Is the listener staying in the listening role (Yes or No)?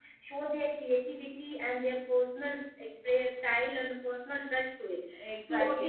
No